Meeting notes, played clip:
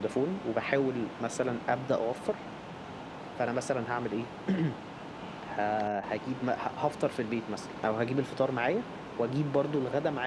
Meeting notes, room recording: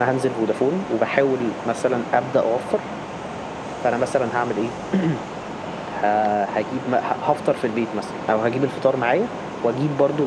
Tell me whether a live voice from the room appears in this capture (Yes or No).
No